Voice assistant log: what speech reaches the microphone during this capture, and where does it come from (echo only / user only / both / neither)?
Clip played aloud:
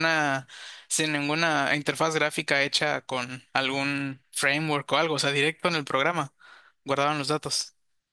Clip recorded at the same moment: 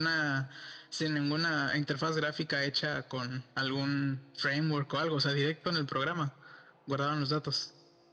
echo only